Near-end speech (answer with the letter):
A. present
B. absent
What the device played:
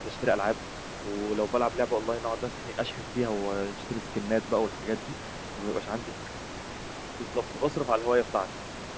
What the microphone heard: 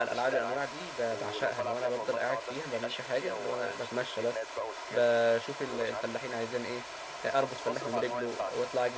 A